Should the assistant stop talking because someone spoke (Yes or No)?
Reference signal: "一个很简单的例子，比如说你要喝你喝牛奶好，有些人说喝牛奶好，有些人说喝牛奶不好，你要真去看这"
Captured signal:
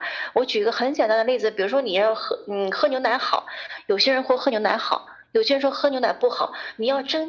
No